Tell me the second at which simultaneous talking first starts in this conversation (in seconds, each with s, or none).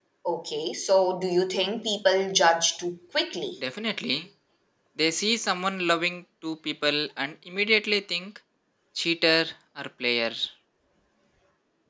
none